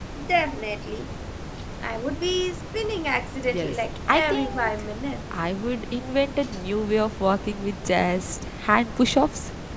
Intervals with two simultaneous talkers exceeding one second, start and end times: 3.5-4.7

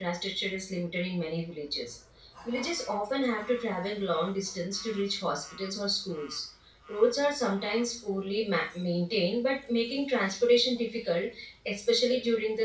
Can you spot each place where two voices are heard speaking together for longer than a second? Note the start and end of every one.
none

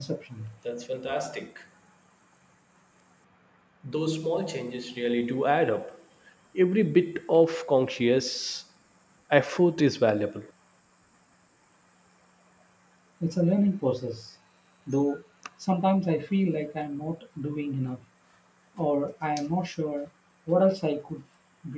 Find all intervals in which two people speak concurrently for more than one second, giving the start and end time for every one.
none

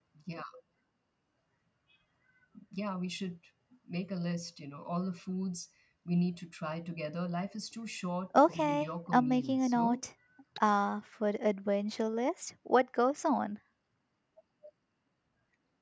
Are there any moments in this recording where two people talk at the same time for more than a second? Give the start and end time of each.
8.5-10.0

